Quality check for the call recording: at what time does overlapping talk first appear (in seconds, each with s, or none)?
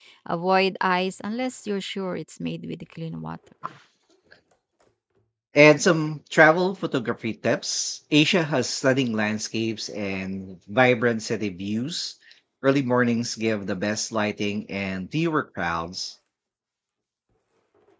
none